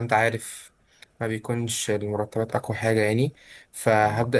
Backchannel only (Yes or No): Yes